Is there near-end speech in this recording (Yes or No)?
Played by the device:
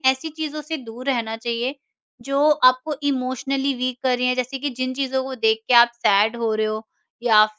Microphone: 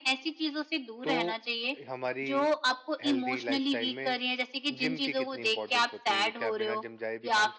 Yes